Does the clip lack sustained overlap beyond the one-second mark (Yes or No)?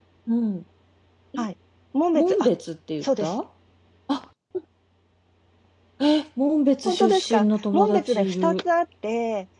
No